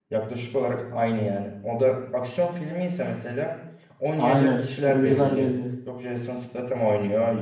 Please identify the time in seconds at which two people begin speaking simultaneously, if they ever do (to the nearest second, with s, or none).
4 s